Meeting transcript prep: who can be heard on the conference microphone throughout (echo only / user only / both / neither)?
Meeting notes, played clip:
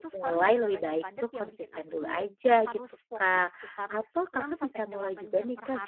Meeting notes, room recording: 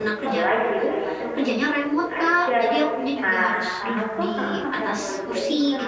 both